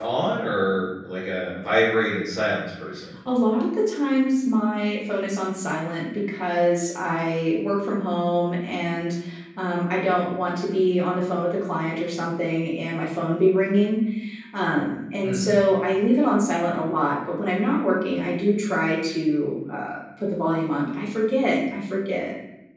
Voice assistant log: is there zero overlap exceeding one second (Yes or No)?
Yes